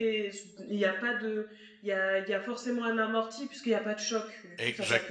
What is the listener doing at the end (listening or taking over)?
taking over